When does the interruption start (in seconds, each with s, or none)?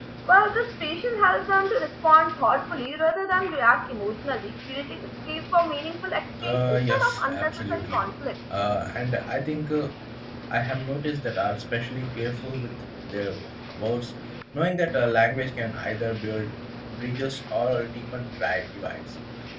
6.4 s